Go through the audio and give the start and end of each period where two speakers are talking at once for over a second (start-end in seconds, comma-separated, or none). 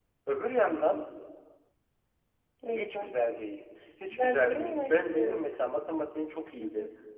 4.1-5.5